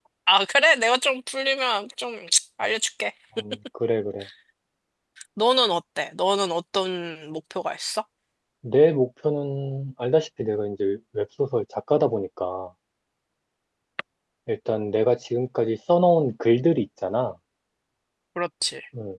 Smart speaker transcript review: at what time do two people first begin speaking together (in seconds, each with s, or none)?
none